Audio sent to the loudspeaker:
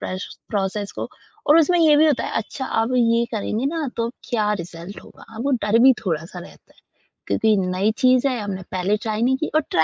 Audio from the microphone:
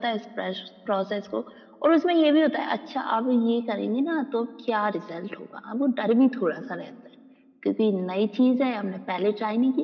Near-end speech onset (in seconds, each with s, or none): none